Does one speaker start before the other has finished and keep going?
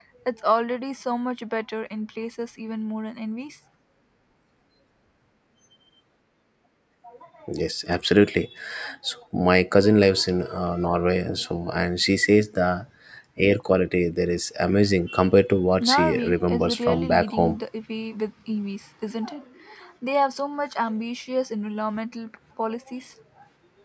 Yes, from 15.8 s

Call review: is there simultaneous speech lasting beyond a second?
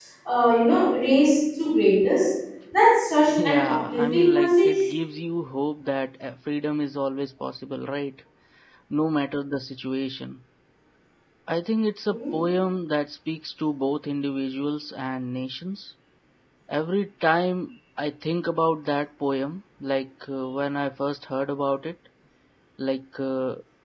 Yes, from 3.4 s

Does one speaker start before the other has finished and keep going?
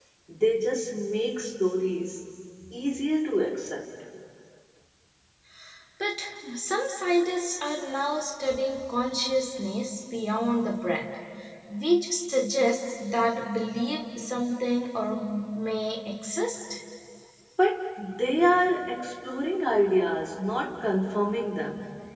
No

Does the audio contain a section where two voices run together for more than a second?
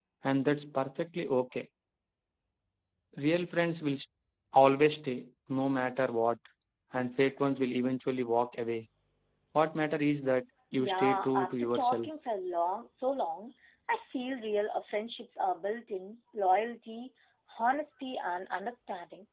Yes, from 10.8 s

